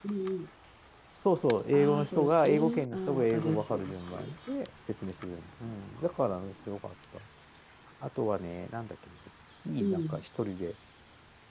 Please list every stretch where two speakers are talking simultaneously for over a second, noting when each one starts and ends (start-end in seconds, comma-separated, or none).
1.7-4.3